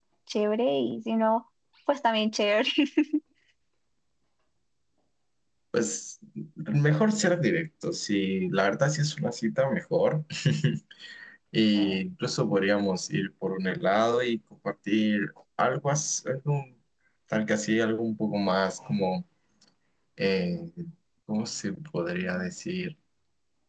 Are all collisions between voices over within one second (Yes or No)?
Yes